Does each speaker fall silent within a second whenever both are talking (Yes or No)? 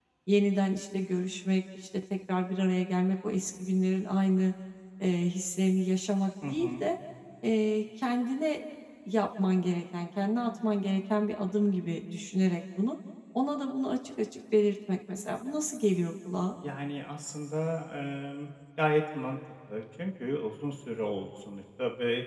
Yes